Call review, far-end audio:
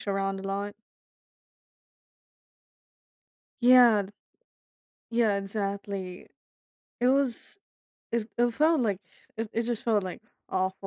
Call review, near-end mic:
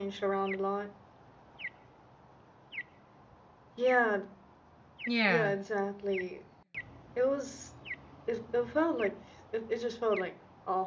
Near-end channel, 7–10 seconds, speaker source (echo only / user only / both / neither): echo only